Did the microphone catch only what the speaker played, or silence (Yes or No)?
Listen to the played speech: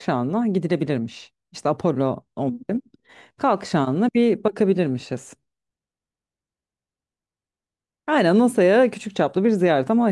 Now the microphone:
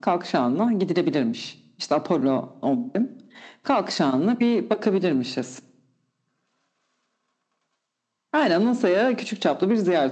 Yes